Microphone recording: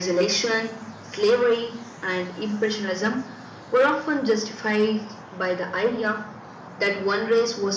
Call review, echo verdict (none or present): present